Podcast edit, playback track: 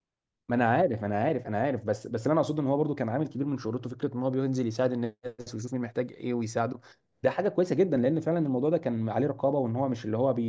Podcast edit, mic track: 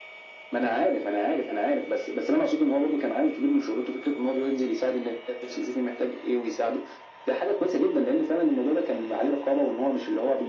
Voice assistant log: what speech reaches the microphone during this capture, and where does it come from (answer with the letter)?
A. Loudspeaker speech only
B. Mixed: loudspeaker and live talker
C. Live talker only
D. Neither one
A